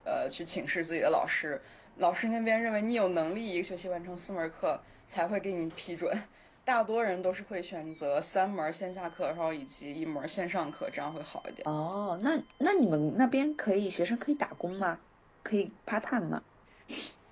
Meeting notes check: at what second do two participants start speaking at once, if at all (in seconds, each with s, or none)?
none